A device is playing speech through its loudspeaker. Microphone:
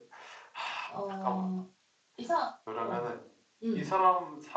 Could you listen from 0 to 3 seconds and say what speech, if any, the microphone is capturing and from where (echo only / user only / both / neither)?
both